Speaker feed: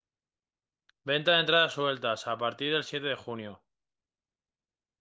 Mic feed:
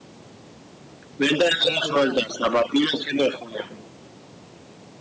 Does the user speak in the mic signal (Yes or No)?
Yes